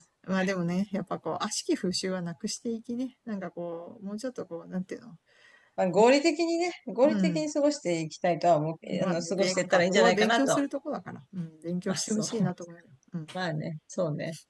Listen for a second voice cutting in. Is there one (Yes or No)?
Yes